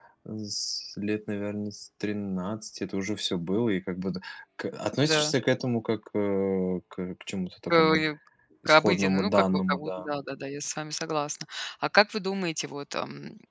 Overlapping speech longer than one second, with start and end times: 8.6-10.1

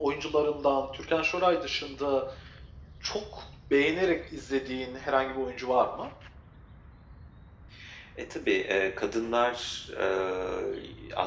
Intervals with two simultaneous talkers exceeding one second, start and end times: none

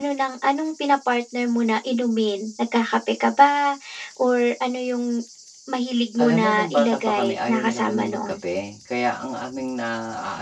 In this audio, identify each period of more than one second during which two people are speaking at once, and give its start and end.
6.2-8.3

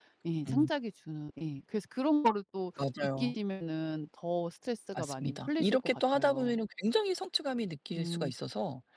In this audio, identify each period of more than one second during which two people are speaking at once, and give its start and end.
5.0-6.5

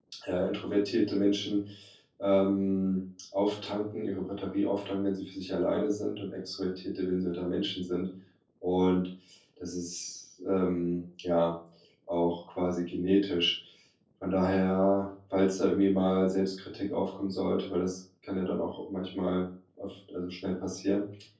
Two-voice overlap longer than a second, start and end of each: none

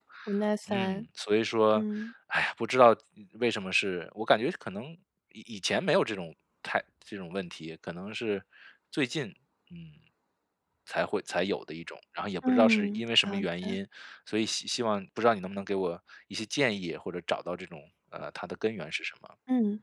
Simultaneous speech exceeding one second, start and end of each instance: 12.5-13.8

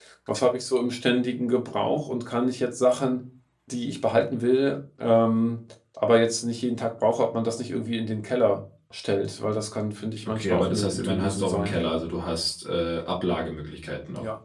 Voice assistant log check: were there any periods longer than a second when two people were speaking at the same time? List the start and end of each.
10.3-11.8

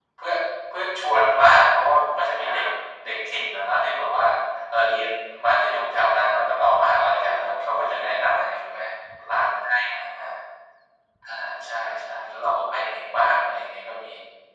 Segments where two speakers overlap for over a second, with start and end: 6.9-8.2

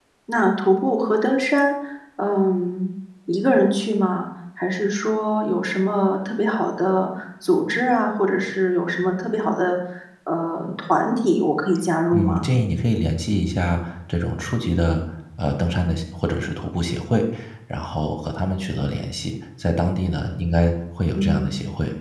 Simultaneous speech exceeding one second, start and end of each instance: none

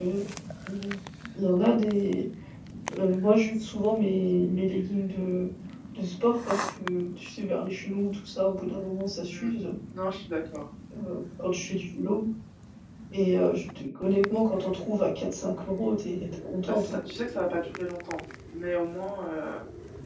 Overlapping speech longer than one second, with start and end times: none

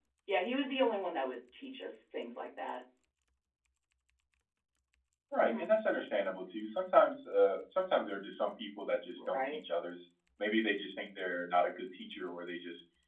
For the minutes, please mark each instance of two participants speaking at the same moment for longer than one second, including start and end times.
none

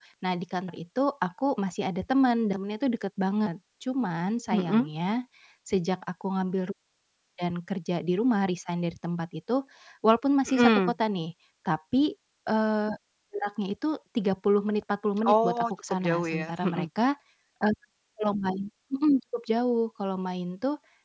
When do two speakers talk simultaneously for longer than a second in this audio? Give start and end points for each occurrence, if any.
15.2-16.9

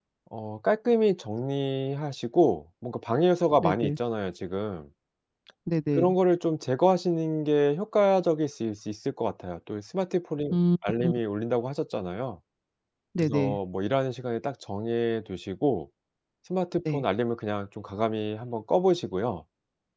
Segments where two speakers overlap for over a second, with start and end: none

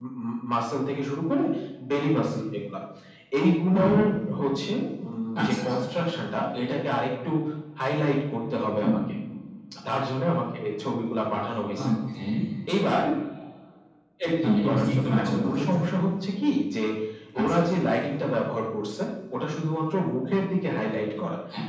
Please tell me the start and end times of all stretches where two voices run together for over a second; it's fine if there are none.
14.4-15.8

